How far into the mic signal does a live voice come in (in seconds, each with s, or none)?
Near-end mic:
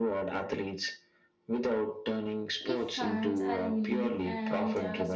2.6 s